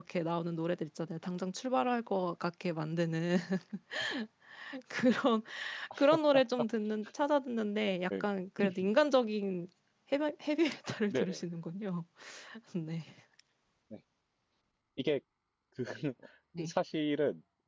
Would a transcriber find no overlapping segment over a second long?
Yes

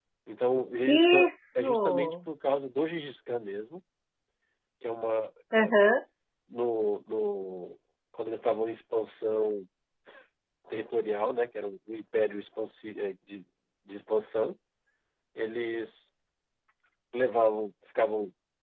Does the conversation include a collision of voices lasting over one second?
Yes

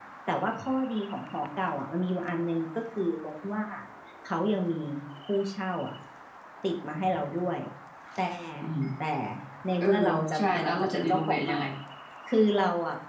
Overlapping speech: Yes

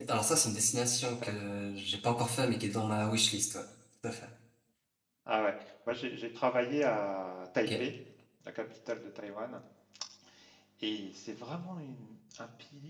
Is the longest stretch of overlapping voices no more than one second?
Yes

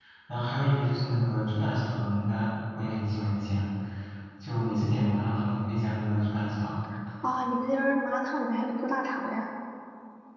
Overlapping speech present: No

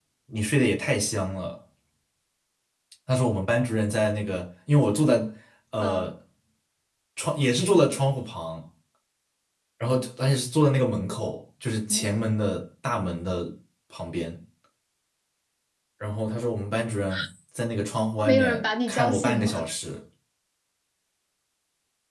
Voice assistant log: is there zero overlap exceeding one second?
No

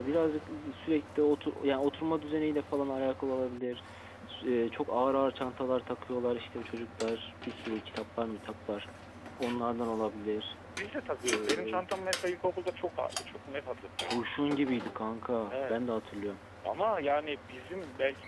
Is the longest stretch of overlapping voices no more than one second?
Yes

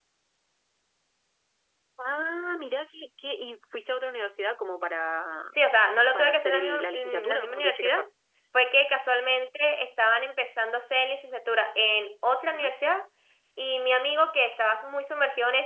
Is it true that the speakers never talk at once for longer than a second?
No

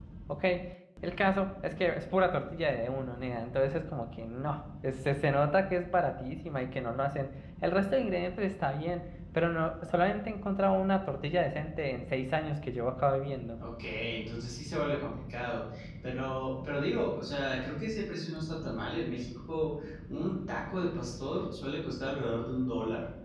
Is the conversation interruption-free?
Yes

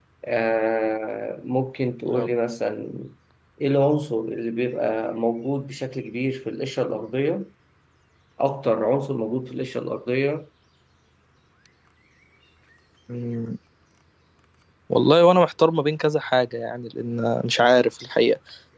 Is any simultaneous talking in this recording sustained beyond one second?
No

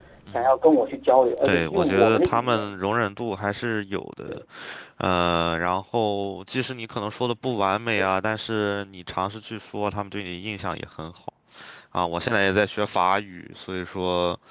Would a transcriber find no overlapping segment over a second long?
No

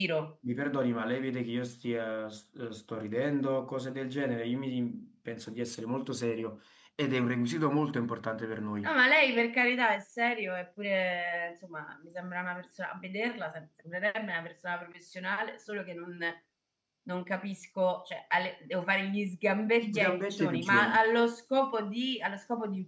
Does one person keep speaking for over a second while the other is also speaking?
Yes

